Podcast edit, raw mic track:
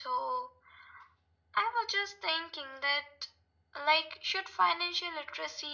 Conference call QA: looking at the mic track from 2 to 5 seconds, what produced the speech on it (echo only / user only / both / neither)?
echo only